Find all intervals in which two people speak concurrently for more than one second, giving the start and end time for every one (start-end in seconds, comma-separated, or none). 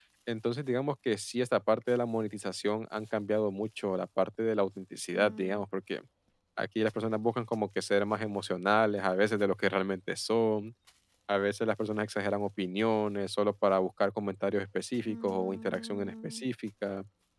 15.1-16.4